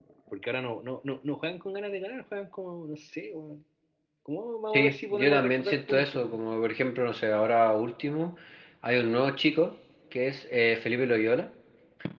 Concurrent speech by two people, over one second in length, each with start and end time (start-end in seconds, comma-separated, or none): 4.7-6.2